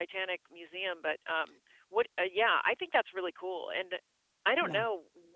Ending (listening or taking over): listening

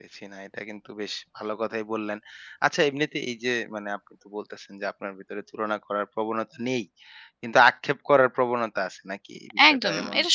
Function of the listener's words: taking over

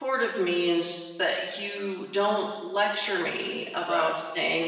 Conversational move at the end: listening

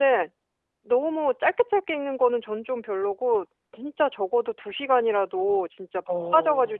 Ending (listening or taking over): listening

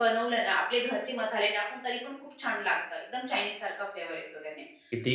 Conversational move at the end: listening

